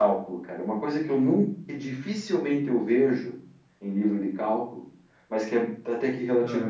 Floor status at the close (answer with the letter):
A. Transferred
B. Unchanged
B